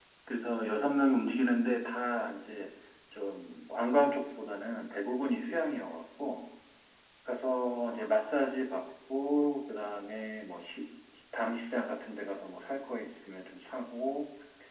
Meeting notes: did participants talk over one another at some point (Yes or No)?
No